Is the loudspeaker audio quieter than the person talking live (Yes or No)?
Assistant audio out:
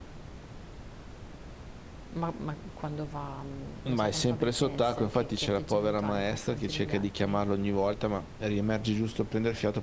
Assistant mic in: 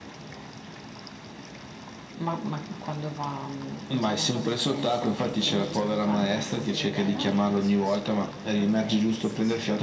No